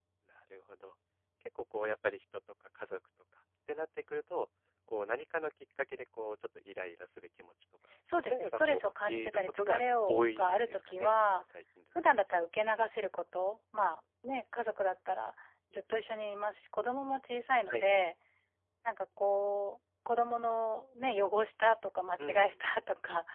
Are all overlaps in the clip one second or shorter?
No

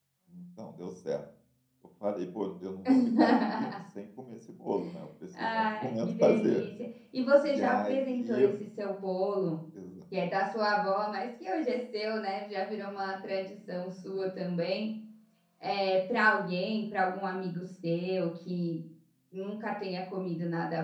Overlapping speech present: Yes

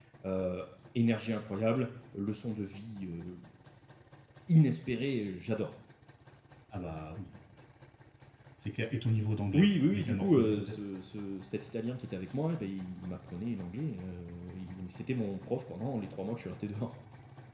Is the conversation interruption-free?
No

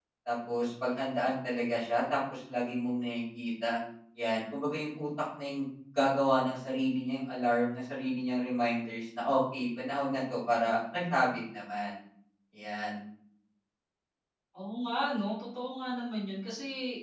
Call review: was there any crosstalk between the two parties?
No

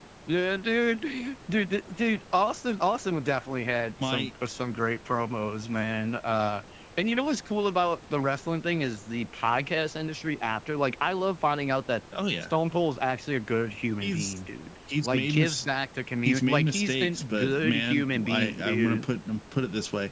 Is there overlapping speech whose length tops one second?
Yes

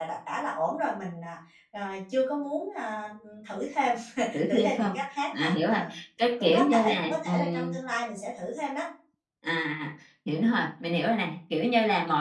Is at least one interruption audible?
Yes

